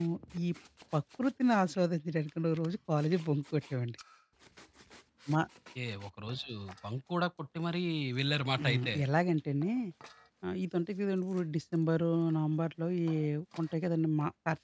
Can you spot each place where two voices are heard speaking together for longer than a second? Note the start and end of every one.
none

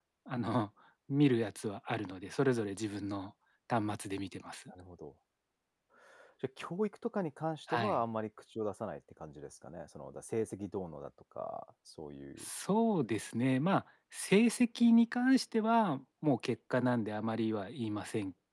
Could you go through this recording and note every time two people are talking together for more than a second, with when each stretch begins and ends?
none

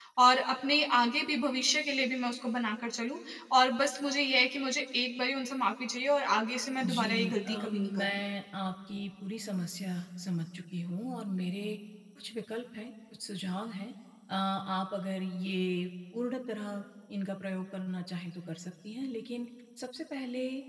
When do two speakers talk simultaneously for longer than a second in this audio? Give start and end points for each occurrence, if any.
6.9-8.2

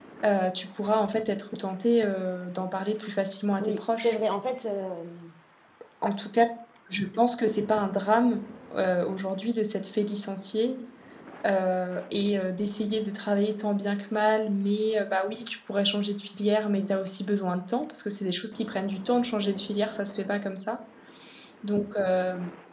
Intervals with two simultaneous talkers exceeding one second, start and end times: none

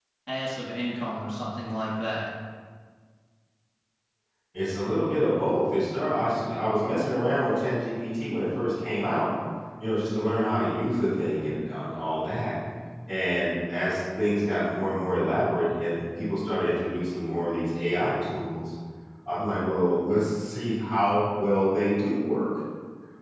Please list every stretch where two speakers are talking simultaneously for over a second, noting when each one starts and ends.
none

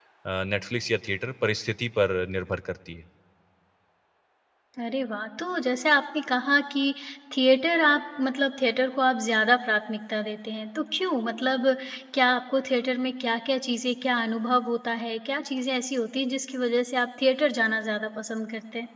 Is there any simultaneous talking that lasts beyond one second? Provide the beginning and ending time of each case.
none

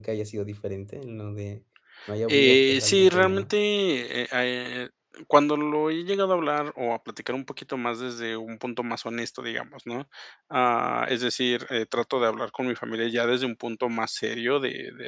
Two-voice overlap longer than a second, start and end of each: 2.3-3.5

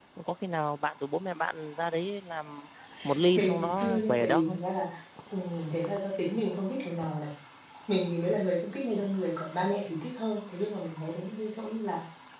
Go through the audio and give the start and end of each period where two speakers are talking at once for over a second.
3.4-4.6

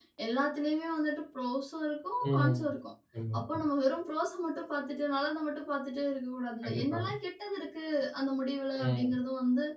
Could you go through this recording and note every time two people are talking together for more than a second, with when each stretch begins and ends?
none

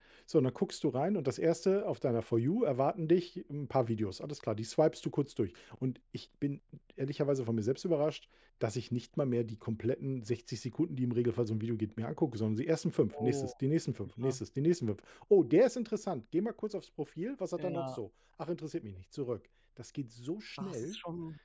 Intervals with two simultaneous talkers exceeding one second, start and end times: none

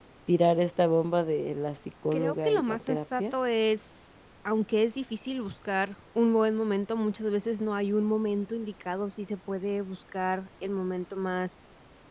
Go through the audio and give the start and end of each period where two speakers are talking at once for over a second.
2.1-3.3

